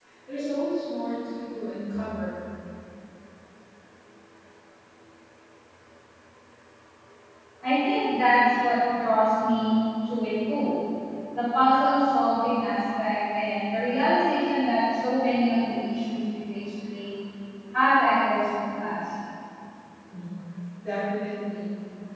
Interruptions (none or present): none